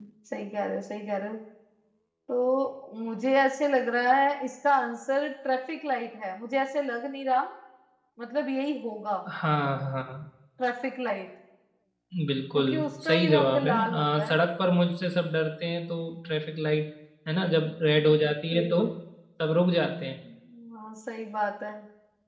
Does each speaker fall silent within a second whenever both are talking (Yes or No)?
No